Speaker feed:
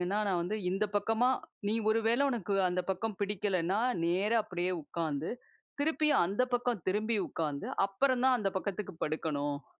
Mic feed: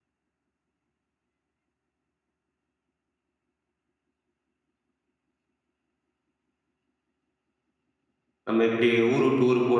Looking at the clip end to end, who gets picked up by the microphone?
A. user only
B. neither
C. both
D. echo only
A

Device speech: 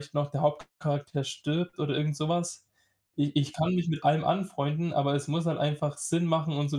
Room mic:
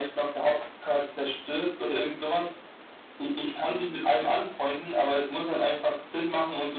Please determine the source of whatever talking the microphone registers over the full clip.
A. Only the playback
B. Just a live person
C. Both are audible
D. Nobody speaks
A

